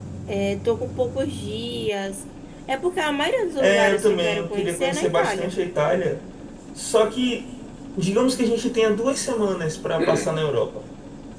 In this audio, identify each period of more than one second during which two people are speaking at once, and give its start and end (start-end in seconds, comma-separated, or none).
3.6-5.5